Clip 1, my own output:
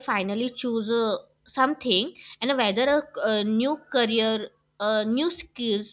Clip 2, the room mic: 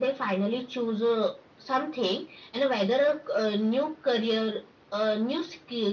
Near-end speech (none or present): none